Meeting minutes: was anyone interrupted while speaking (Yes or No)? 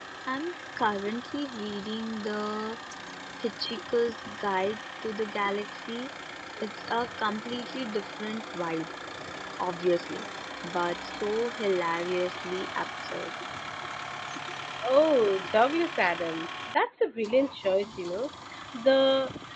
No